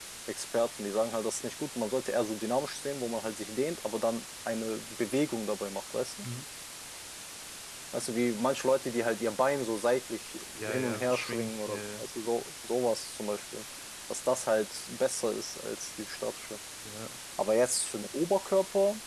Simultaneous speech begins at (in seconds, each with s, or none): 10.6 s